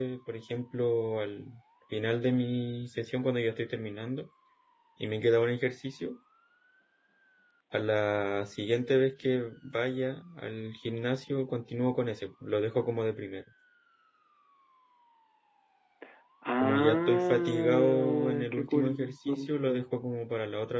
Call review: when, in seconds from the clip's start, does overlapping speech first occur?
17 s

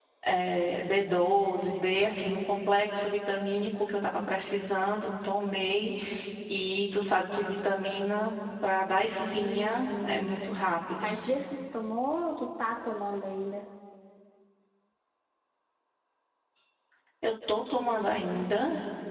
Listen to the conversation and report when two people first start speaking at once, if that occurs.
9 s

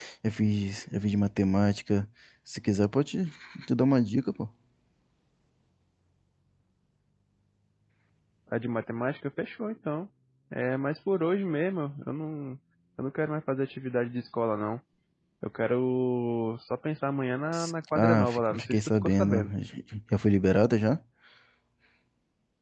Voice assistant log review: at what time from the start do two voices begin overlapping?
18 s

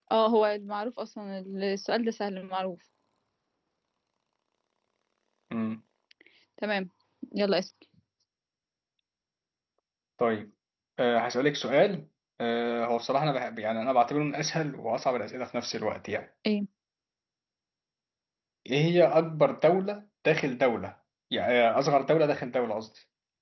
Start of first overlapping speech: none

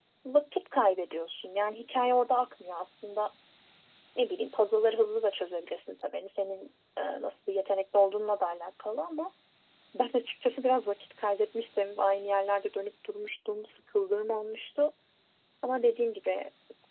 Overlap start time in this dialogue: none

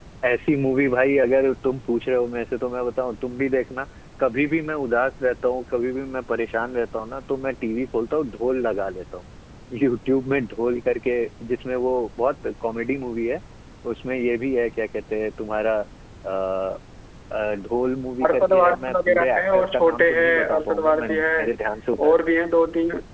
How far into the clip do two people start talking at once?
18 s

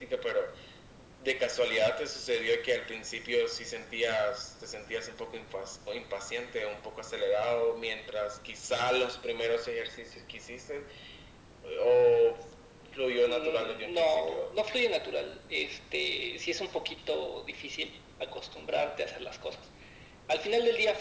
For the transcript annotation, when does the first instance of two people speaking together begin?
13 s

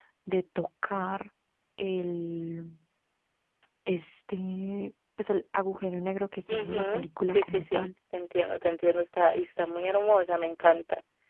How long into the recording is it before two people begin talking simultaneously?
6 s

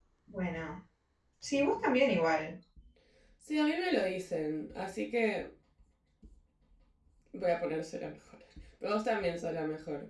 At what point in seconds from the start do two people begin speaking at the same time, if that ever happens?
none

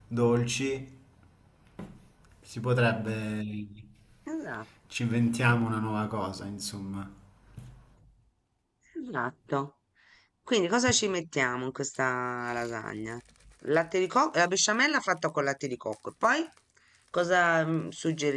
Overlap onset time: none

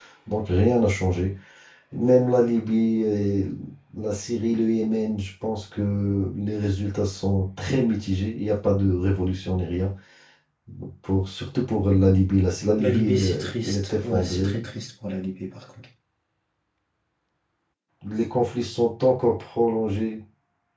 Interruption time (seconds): 13 s

